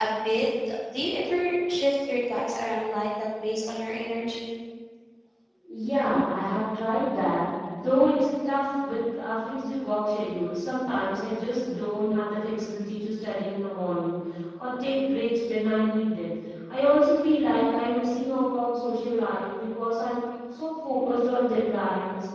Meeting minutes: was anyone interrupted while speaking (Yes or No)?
No